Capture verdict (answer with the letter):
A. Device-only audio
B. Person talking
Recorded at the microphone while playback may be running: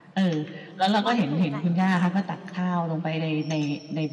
B